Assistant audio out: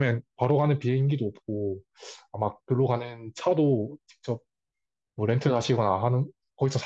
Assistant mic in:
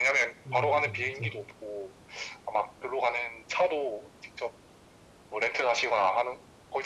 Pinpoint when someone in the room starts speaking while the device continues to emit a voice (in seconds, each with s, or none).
0.4 s